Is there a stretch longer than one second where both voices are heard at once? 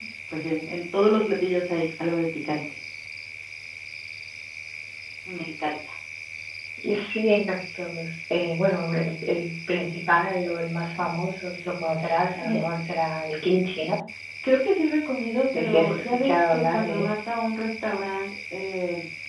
Yes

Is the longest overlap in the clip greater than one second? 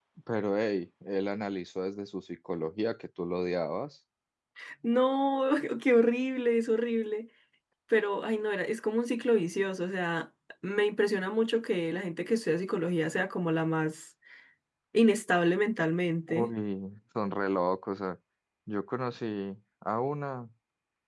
No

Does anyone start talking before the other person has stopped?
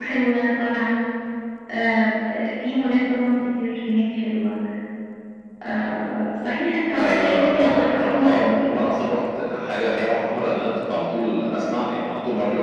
Yes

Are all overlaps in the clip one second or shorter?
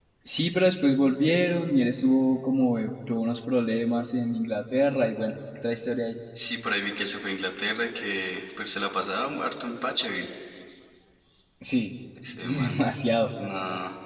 Yes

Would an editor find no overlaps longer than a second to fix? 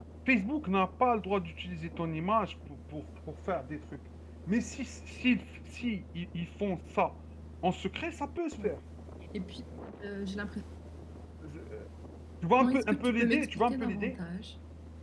No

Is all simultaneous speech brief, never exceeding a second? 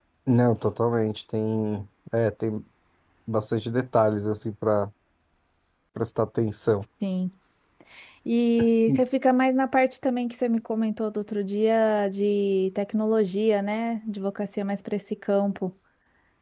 Yes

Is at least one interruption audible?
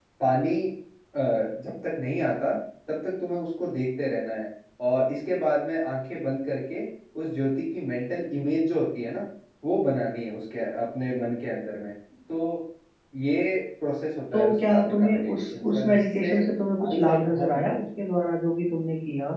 Yes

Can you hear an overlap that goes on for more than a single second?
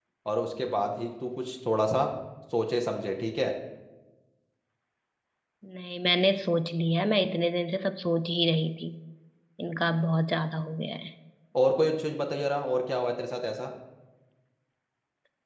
No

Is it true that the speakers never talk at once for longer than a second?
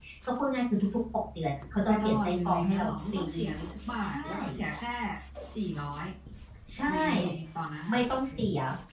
No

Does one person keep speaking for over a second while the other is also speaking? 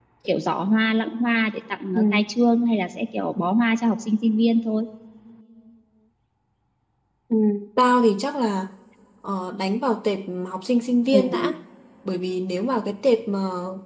No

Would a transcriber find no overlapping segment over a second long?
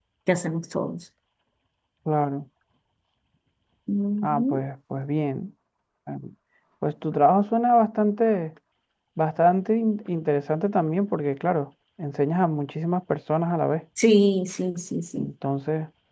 Yes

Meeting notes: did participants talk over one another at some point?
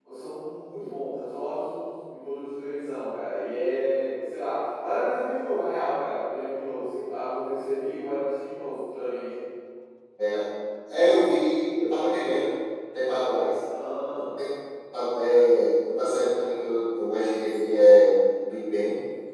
No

